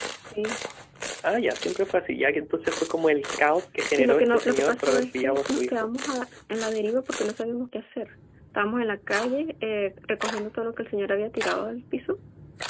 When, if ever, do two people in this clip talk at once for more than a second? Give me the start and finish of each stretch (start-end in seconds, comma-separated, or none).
3.9-5.8